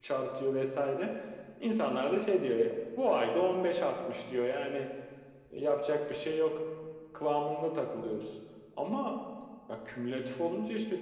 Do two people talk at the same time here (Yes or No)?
No